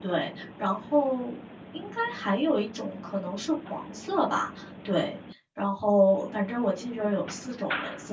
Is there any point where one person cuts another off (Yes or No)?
No